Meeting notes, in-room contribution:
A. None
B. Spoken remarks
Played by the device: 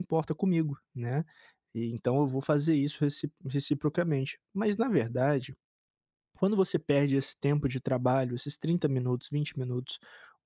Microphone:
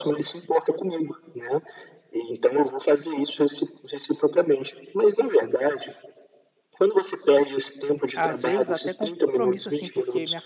B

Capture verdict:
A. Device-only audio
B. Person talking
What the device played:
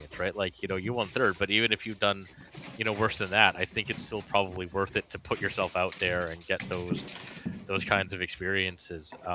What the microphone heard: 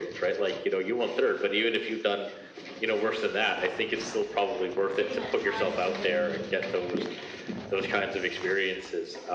B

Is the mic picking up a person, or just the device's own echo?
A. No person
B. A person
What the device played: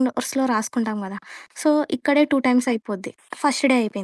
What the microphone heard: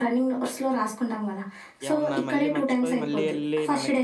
B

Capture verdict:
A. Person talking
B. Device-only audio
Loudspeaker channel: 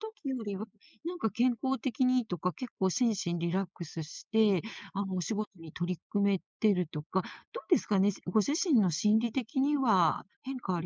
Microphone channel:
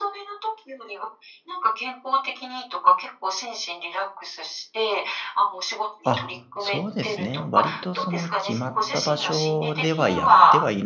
A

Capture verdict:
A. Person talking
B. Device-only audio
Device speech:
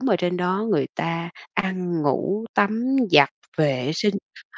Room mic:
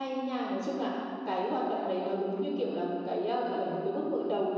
A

